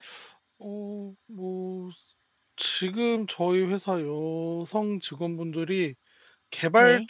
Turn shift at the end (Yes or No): No